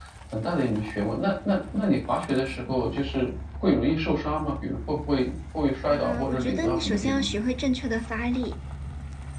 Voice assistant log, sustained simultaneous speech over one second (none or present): present